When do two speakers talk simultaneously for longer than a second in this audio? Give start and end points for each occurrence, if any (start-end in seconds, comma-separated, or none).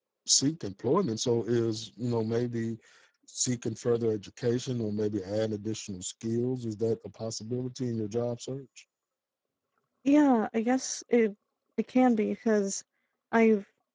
none